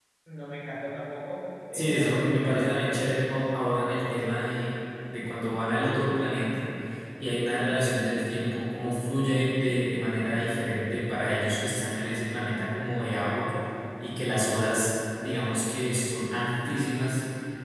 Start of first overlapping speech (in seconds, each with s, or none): 1.7 s